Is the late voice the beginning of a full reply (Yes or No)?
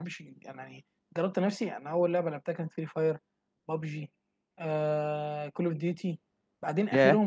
No